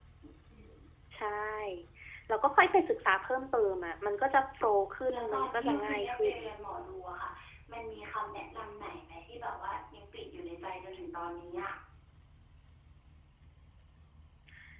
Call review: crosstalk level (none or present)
present